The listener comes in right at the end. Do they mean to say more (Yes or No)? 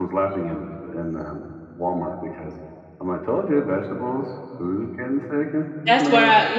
Yes